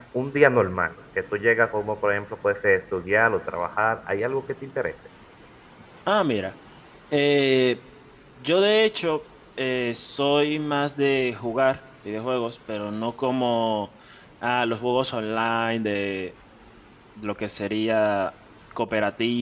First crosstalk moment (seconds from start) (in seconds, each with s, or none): none